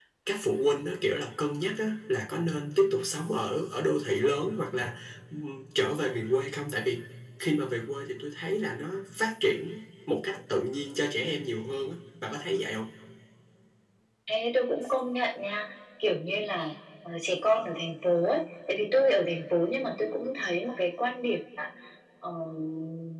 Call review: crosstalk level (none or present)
none